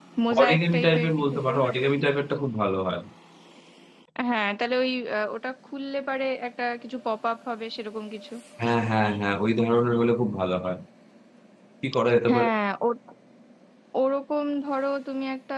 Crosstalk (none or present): present